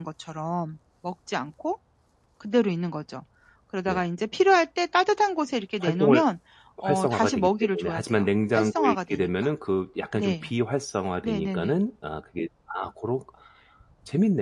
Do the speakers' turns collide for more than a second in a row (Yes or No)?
Yes